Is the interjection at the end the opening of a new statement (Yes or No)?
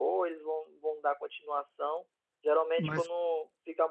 No